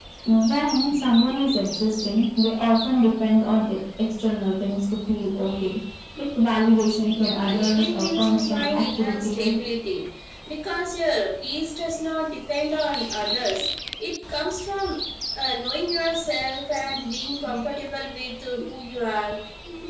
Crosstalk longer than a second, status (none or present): present